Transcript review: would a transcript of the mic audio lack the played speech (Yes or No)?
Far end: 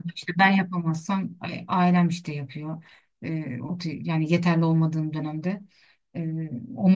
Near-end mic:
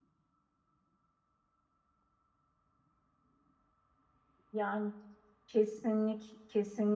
Yes